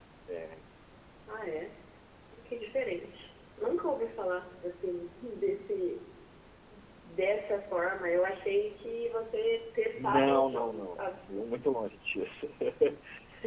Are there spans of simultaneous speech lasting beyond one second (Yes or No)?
Yes